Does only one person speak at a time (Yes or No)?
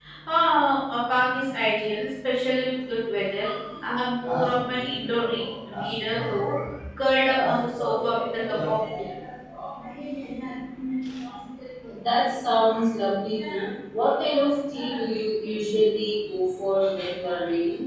No